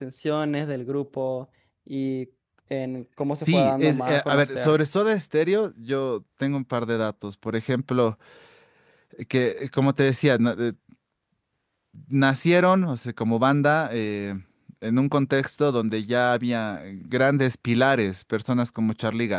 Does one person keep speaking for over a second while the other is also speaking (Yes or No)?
Yes